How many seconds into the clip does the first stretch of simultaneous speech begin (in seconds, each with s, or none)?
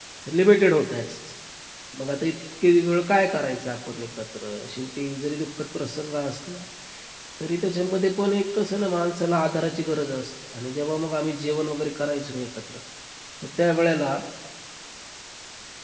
none